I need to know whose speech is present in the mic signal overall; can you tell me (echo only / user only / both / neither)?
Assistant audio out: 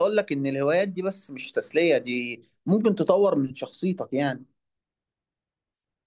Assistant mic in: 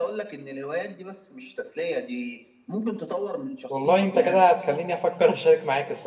both